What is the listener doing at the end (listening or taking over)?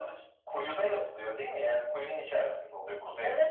taking over